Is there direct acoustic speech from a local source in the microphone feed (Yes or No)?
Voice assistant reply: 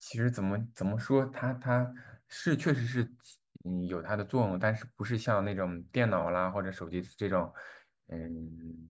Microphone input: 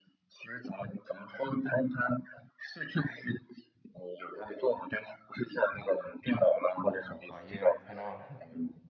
Yes